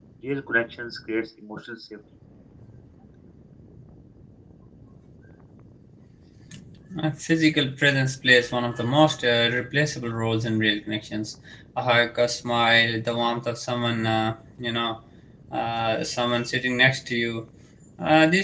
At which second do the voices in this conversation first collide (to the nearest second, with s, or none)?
none